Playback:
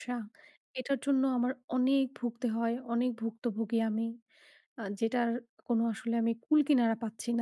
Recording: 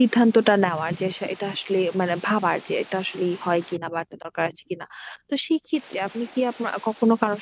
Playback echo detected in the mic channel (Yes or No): No